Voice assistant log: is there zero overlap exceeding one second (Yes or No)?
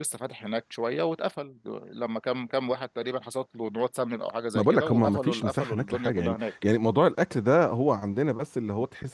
No